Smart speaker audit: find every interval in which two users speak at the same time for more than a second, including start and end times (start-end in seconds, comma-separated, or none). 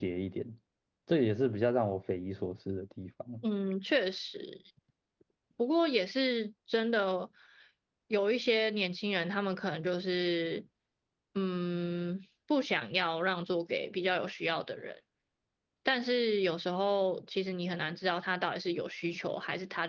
none